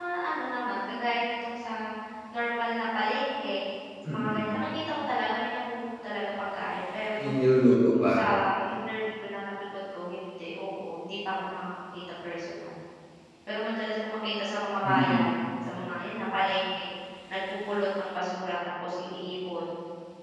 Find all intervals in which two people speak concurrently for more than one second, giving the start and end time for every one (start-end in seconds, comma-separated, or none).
none